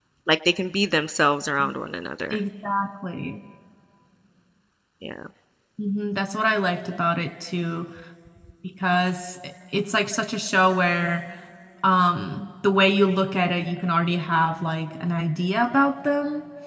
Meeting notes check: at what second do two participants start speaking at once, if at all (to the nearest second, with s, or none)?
none